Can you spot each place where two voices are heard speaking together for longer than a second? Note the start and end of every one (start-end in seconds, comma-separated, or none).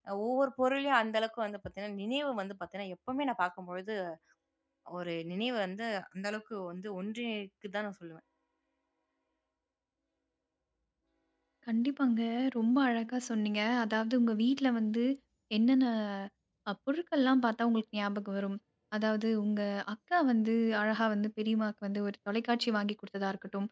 none